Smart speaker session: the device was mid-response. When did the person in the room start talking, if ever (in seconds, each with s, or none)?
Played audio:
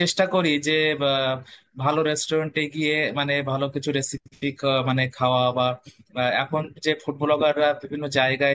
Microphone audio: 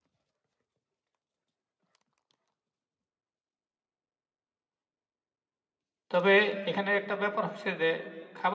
6.1 s